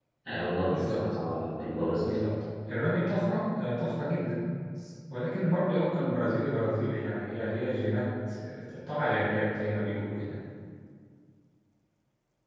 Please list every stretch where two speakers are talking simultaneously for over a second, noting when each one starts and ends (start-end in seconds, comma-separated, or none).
none